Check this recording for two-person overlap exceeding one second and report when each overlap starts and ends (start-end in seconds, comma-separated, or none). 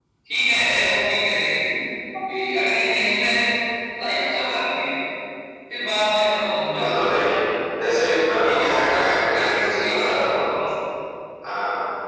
8.0-10.2